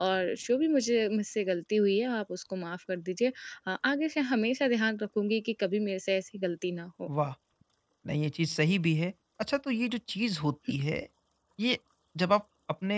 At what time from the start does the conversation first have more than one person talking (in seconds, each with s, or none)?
none